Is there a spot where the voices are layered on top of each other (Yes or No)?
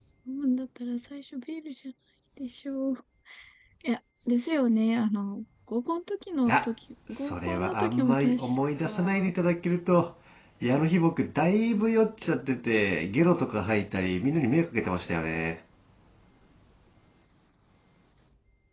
Yes